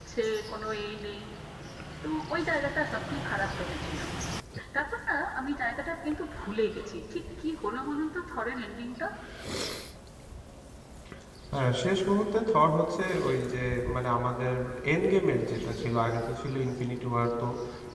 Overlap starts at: none

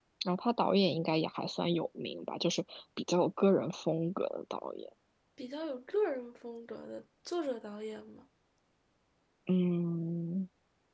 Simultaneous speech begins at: none

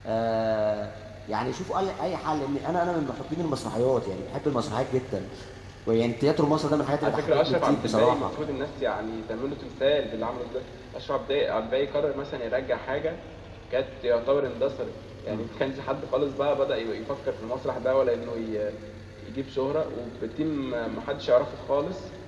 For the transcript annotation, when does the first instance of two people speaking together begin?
7.0 s

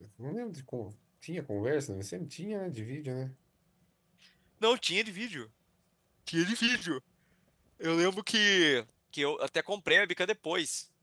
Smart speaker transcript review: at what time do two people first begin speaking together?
none

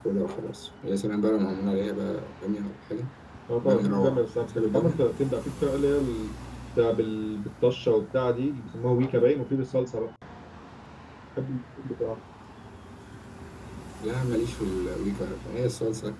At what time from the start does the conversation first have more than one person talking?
3.6 s

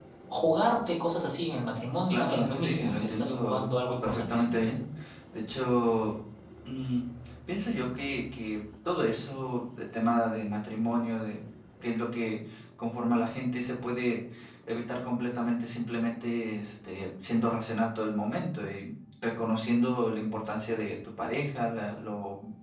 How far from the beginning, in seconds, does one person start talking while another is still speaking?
2.1 s

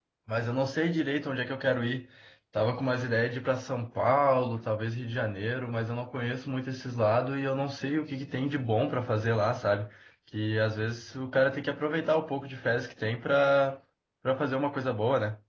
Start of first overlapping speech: none

